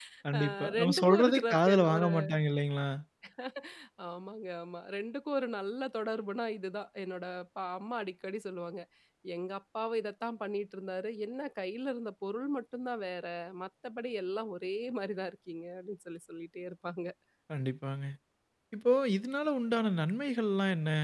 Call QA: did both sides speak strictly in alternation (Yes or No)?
No